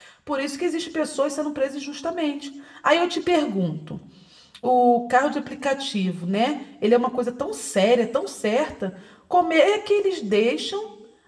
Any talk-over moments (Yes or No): No